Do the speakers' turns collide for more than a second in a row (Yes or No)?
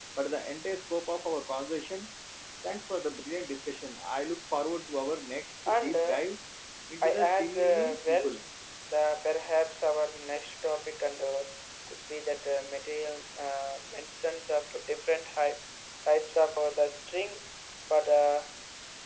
Yes